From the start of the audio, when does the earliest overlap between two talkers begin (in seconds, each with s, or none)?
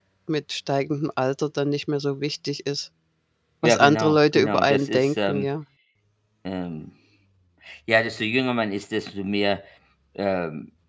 3.6 s